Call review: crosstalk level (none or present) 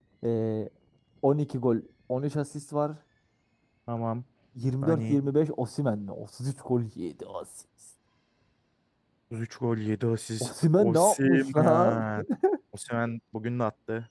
present